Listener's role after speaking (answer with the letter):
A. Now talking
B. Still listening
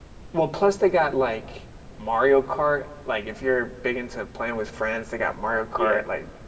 A